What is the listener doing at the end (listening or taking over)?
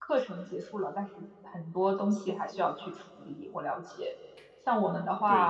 listening